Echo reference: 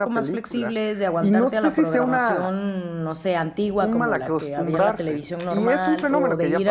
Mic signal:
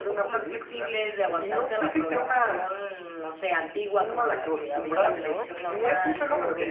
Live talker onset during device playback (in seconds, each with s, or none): 5.0 s